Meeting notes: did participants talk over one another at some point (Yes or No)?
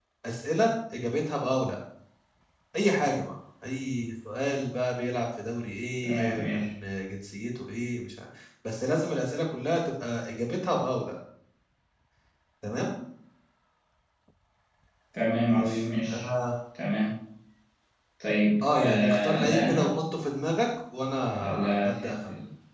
Yes